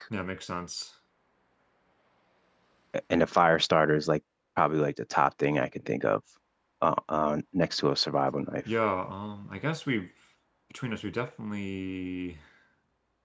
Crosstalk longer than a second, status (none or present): none